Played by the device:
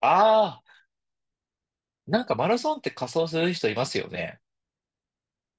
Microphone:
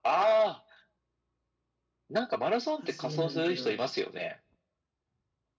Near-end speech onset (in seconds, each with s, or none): 2.7 s